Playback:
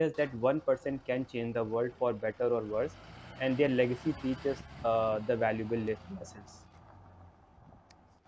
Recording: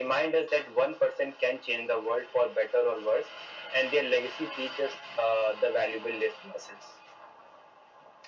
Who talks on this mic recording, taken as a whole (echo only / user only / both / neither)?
echo only